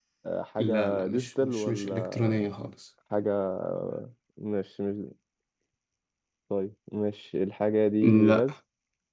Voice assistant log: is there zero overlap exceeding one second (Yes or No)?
No